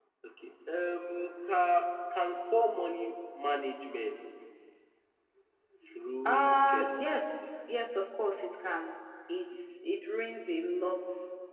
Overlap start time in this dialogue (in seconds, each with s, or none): 6.2 s